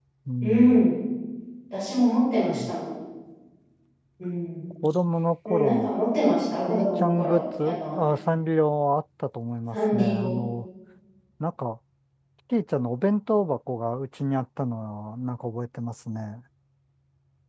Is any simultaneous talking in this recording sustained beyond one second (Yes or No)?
Yes